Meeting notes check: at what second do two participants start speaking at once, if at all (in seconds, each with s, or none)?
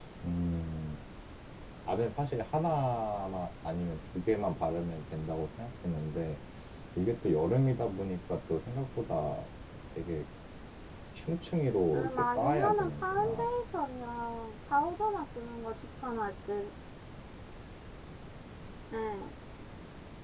11.9 s